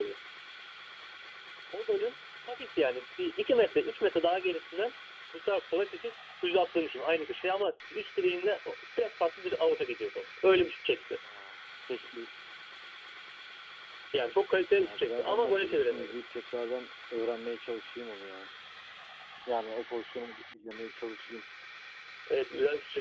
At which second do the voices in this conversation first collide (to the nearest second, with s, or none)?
15 s